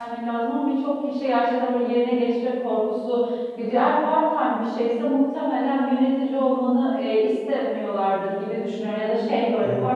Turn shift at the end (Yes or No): No